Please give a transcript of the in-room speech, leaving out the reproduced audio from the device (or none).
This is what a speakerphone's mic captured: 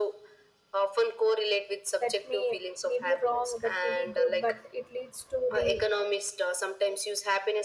that may may be wrong that may be good but it leads to the